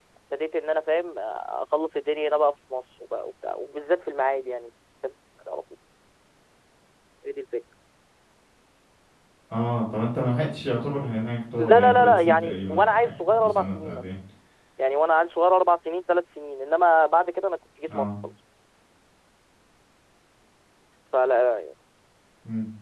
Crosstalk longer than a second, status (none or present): present